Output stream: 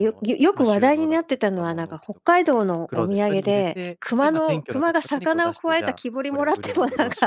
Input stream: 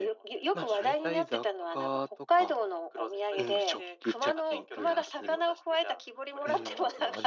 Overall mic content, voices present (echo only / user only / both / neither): both